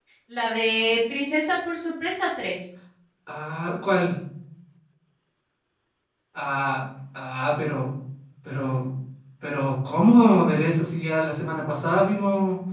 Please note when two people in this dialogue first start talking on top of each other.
none

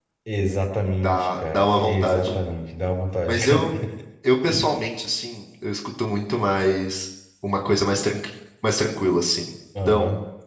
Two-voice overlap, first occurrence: 1.0 s

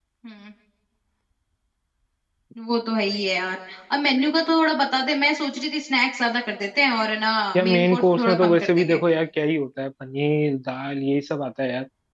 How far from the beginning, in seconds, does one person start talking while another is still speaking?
7.5 s

